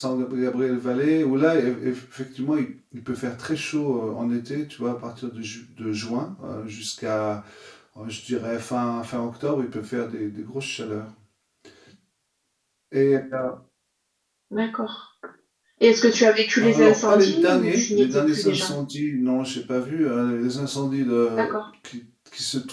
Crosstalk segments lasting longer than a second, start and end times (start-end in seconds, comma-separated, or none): 16.6-18.7